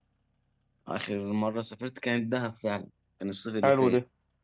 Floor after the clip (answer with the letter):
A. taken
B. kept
A